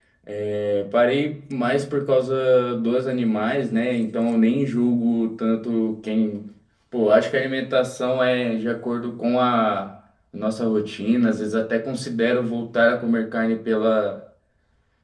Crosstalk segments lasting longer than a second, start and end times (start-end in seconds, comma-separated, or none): none